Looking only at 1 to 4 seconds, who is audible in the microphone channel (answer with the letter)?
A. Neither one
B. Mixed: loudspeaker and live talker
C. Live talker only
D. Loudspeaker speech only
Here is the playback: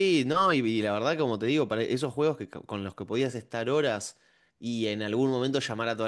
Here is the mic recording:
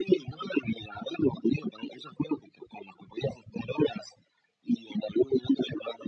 D